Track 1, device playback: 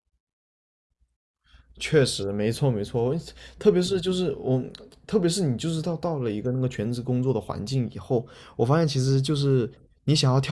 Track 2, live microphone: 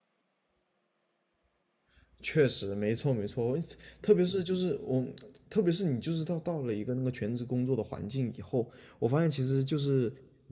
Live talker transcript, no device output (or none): none